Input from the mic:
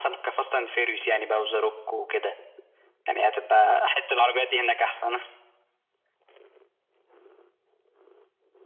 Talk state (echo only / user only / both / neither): echo only